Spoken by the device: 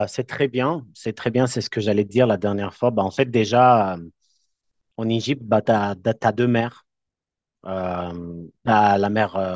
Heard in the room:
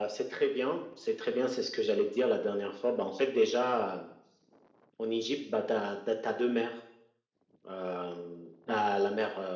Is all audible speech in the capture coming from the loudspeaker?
Yes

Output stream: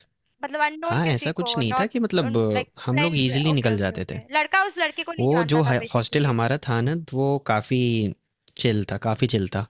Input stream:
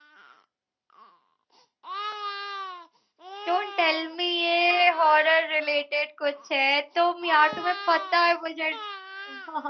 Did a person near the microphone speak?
Yes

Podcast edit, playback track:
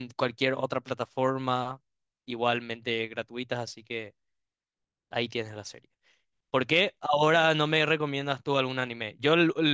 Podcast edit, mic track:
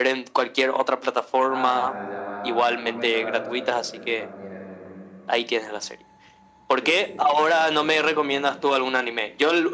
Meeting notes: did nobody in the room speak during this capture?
No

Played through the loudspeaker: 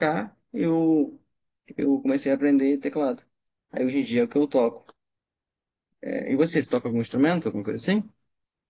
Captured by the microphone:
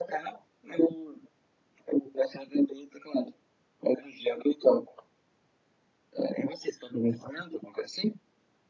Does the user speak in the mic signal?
No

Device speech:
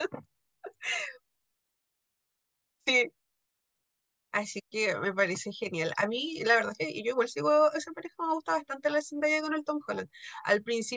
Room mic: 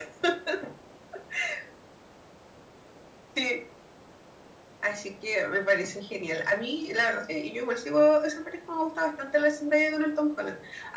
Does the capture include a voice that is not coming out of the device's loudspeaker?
No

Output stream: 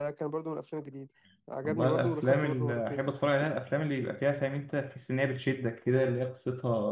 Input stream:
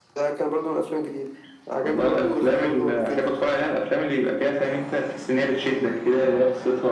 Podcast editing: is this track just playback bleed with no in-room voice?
Yes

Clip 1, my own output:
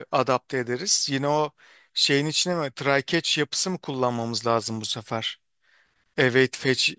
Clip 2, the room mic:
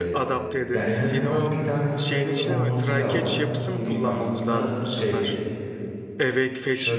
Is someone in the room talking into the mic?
Yes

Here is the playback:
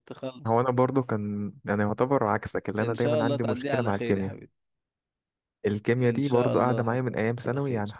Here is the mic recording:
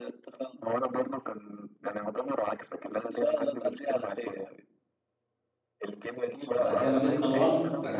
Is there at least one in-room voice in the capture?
Yes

